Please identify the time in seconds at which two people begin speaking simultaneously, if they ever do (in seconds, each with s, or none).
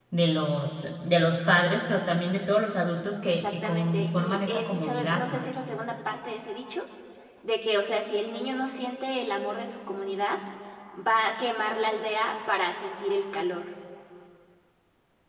3.3 s